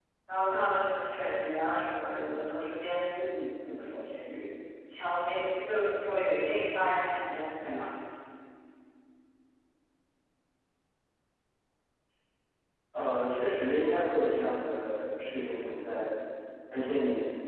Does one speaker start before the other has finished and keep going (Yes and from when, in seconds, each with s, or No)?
No